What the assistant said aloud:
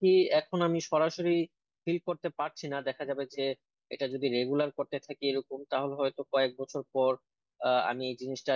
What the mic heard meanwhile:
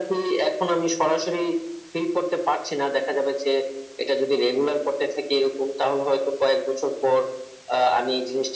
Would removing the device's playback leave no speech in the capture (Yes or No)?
Yes